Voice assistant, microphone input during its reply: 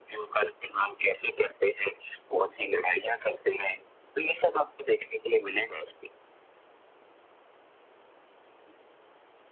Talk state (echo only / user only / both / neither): echo only